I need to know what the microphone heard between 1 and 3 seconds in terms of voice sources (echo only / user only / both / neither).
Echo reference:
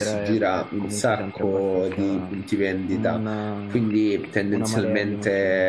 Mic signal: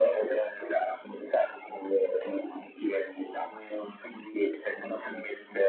echo only